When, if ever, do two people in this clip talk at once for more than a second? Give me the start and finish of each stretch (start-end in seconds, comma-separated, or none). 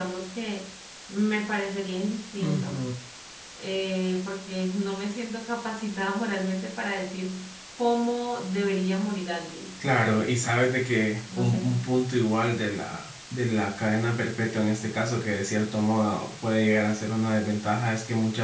none